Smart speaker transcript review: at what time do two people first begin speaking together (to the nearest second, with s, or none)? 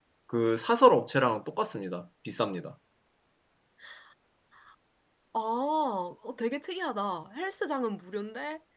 none